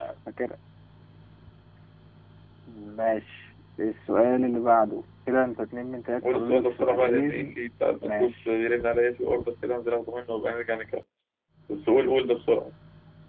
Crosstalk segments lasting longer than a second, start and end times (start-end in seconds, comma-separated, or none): 6.2-7.5